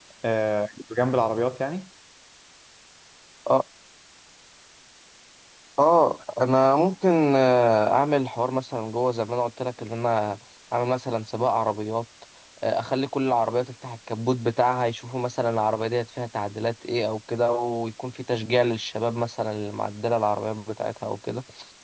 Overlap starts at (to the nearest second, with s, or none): none